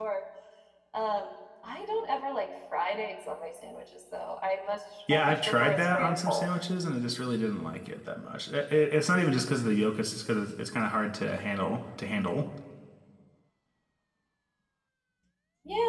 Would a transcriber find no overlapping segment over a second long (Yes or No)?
No